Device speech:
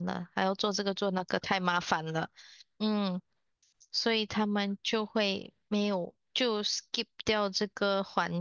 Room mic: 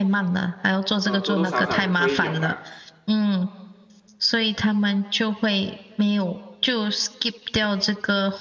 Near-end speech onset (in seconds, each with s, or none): 1.0 s